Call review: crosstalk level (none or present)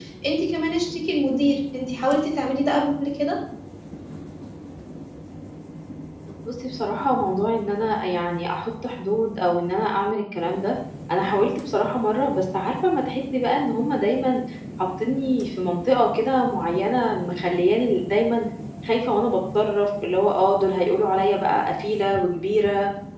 none